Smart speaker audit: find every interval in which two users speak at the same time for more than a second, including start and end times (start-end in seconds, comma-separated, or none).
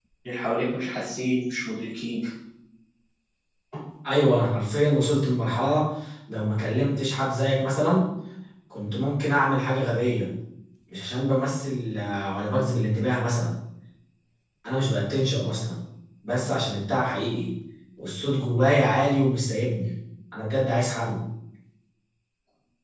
none